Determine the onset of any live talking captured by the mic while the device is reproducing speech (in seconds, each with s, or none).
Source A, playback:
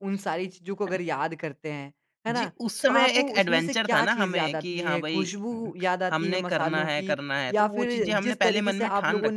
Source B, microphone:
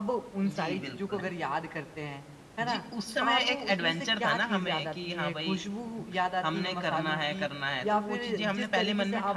0.5 s